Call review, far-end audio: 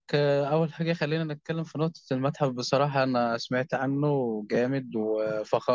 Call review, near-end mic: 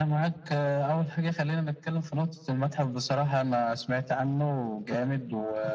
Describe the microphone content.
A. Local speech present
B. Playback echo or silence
B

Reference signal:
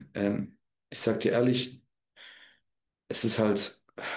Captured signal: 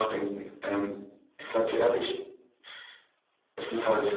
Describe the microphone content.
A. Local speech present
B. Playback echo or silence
B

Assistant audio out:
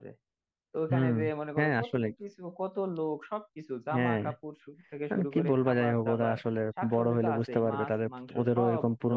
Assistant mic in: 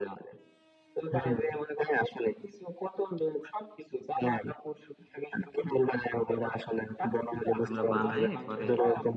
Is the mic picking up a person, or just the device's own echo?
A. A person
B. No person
A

